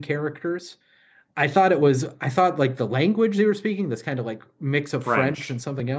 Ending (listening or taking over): listening